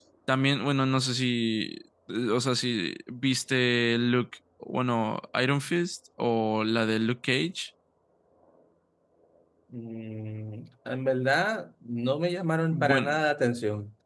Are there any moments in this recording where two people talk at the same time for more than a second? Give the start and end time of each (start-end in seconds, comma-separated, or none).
none